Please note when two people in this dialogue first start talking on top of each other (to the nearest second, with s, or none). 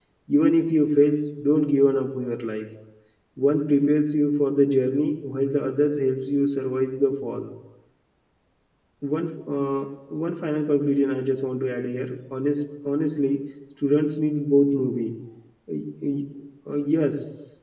none